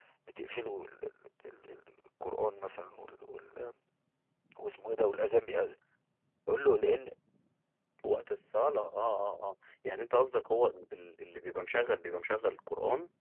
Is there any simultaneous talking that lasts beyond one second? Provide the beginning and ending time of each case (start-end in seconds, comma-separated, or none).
none